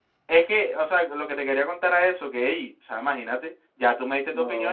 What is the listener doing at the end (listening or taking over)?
listening